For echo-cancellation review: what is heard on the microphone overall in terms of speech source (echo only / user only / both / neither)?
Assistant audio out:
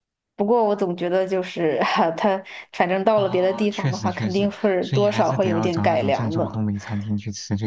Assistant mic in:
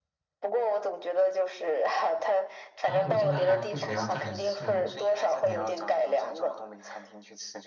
both